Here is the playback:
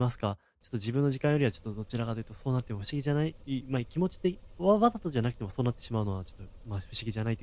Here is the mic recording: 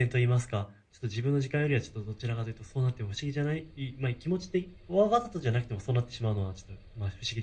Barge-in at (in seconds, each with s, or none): none